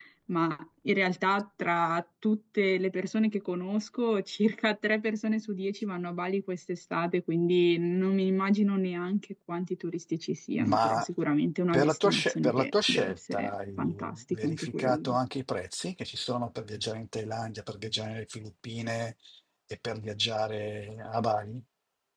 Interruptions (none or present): present